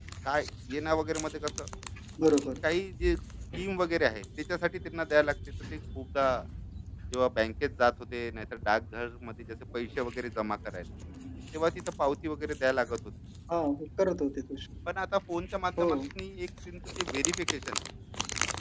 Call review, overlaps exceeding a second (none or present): none